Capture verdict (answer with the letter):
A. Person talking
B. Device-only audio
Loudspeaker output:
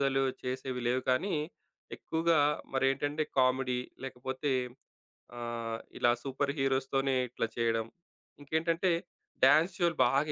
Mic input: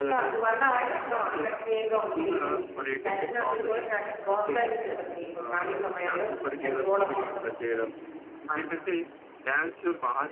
A